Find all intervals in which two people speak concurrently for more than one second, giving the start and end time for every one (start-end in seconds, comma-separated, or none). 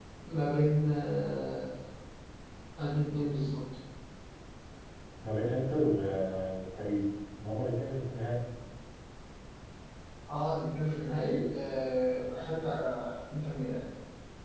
none